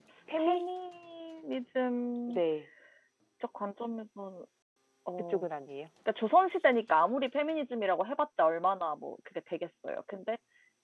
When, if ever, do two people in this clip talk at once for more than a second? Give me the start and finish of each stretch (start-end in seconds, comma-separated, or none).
none